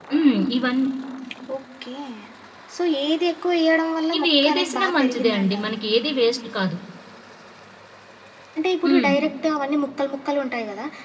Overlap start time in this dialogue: 4 s

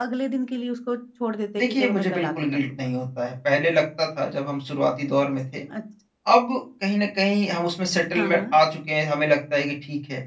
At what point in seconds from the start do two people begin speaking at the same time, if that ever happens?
2 s

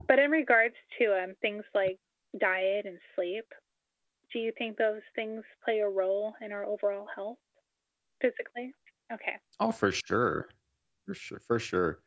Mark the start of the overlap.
none

